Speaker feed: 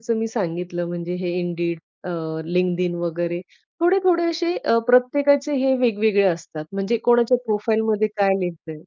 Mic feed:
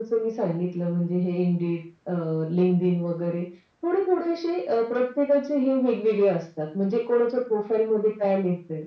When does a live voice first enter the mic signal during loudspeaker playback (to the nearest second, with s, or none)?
none